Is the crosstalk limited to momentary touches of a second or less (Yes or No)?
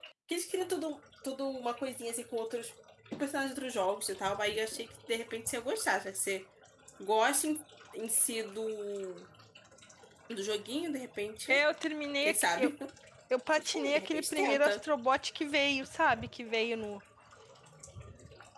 No